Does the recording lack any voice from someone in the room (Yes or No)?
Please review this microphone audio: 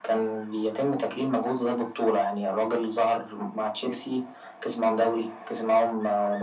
Yes